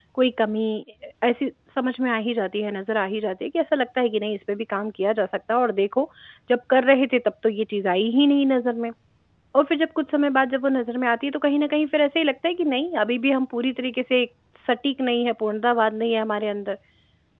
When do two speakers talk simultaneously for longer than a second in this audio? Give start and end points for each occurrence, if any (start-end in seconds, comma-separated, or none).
none